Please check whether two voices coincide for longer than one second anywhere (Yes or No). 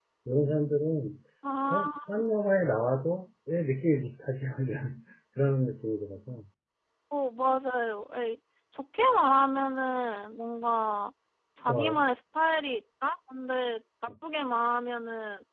No